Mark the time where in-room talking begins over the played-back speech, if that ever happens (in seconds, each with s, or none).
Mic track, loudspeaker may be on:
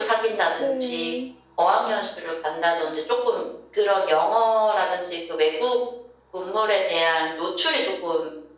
0.6 s